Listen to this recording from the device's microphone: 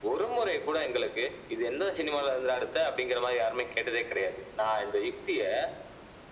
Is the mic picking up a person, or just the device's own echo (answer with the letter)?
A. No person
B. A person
A